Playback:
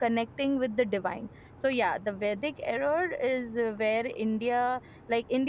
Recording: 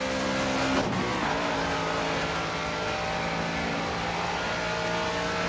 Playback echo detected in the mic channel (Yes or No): No